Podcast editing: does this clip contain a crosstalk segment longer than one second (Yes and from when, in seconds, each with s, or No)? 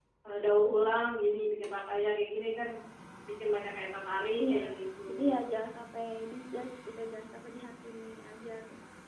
No